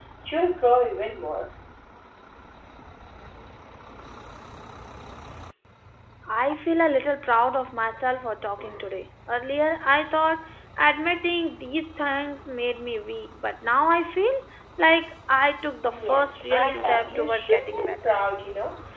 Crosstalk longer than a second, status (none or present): present